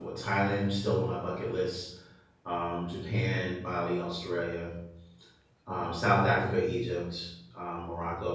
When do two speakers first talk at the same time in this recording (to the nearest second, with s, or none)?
none